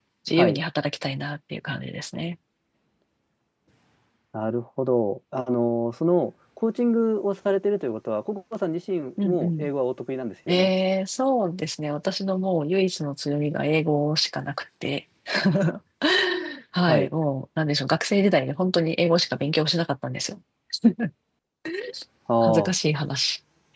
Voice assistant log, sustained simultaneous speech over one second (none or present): none